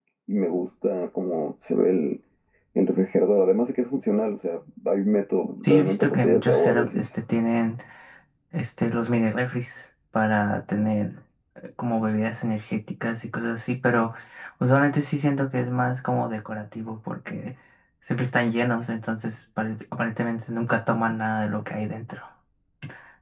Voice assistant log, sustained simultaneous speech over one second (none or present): present